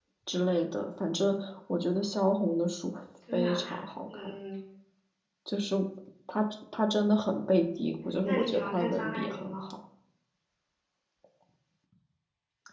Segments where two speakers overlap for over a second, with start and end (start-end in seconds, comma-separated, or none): 8.2-9.6